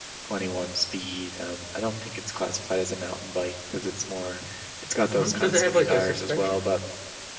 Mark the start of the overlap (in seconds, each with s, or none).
5.1 s